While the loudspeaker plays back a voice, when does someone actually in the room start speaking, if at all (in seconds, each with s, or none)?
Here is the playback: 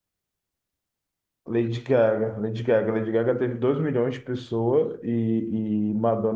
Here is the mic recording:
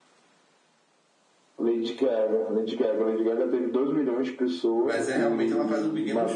4.8 s